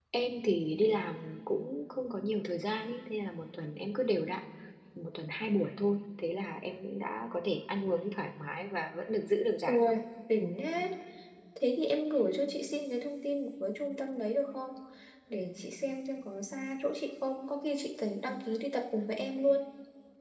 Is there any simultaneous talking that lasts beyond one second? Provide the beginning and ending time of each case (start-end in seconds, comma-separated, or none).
none